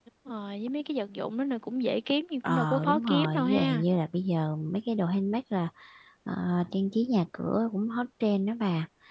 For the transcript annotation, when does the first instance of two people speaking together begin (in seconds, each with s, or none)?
2.4 s